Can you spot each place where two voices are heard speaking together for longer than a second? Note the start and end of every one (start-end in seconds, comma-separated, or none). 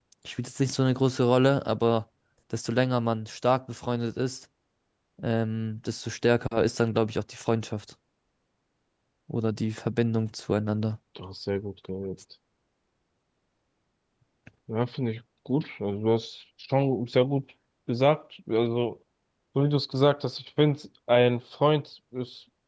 none